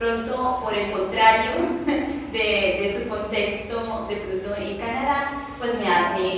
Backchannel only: Yes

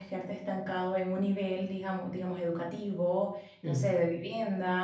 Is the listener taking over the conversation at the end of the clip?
No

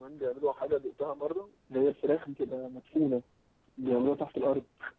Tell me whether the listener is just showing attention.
No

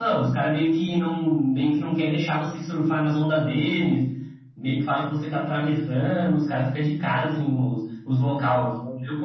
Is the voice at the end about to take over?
No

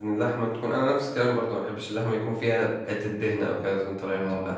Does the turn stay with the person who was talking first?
No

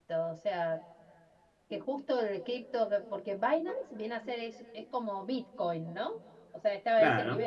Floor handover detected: No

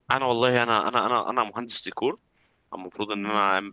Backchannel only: Yes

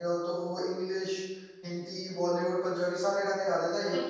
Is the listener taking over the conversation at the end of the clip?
Yes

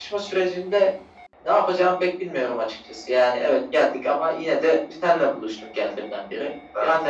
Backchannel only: Yes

